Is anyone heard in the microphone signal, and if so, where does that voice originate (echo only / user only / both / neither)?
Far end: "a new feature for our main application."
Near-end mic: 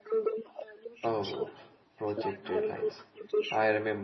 both